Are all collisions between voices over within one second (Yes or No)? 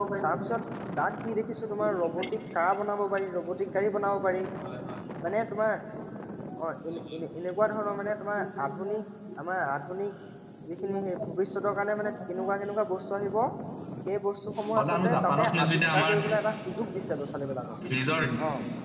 No